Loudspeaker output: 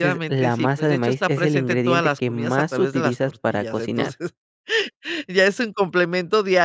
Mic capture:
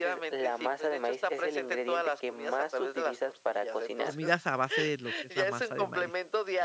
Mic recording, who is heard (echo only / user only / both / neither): both